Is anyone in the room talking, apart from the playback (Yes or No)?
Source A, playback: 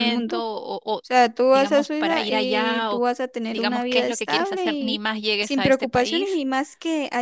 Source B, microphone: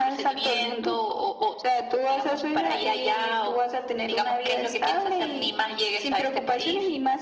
No